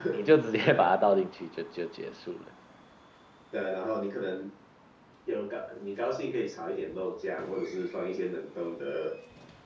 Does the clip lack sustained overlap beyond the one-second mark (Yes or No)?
Yes